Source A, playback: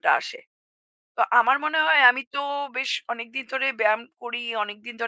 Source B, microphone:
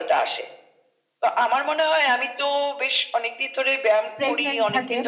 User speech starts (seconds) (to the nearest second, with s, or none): 4 s